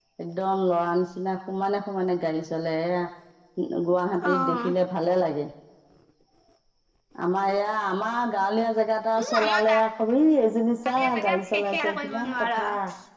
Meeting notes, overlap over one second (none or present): present